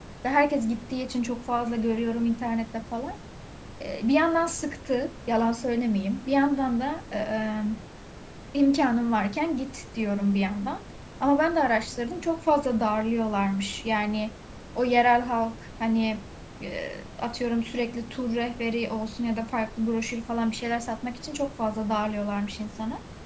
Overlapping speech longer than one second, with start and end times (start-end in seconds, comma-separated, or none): none